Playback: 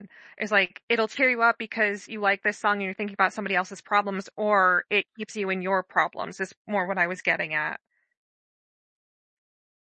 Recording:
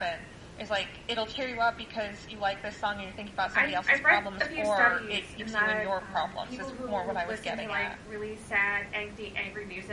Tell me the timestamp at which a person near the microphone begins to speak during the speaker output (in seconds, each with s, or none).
3.5 s